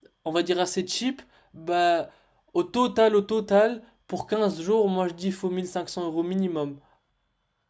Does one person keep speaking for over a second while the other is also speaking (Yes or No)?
No